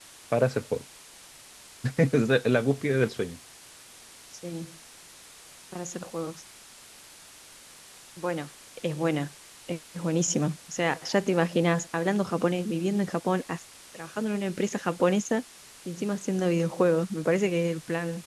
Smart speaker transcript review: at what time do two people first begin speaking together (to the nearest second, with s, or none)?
none